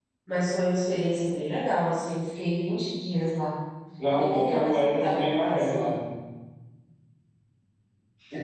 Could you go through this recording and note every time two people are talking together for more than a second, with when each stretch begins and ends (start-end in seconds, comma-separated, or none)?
4.1-5.7